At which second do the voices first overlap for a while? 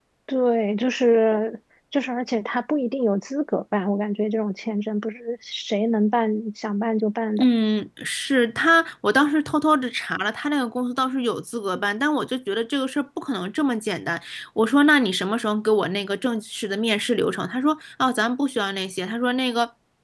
none

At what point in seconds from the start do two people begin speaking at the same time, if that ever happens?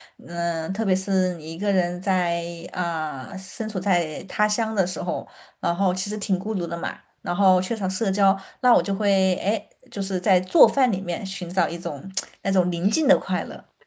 none

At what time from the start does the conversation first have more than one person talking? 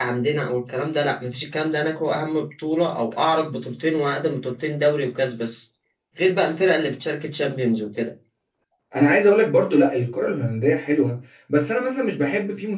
none

